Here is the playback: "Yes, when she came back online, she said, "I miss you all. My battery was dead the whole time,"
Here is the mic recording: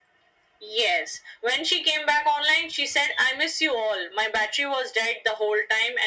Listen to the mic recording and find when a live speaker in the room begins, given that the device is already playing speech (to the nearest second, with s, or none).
none